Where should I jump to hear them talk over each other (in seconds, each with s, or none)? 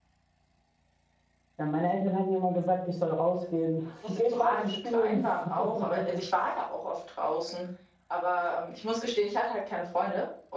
4.0 s